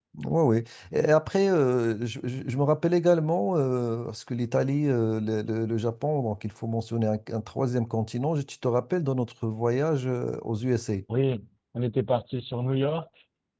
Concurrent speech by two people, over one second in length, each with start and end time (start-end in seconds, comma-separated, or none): none